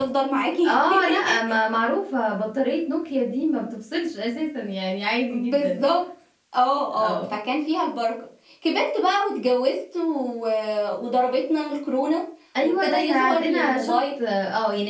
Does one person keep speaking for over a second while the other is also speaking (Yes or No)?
Yes